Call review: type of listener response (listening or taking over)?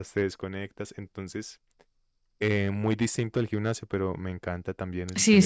taking over